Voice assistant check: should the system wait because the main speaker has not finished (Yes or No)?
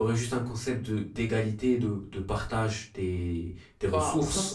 No